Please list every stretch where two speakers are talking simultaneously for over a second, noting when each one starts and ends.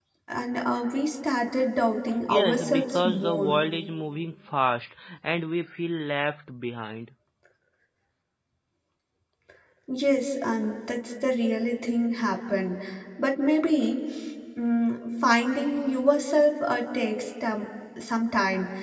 2.3-3.5

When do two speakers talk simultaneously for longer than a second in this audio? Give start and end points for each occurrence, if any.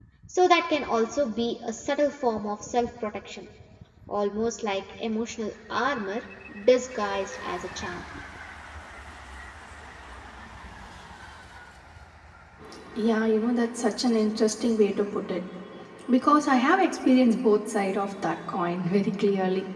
none

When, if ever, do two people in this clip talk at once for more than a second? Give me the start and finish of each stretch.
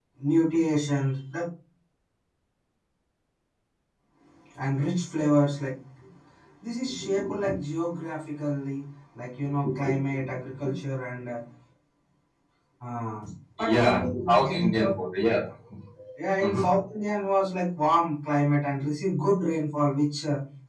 13.6-14.9

